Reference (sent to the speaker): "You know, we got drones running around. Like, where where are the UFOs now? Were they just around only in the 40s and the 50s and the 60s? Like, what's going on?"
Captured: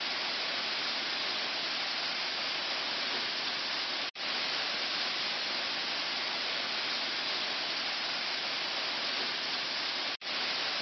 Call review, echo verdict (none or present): none